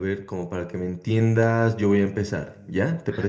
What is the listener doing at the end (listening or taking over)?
taking over